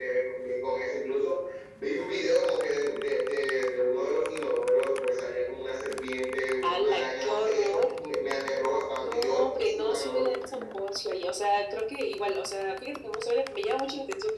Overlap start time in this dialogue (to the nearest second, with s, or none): 7 s